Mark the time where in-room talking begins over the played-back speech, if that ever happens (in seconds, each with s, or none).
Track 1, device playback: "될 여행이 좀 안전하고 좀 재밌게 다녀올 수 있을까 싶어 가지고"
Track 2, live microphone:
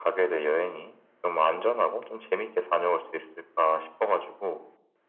none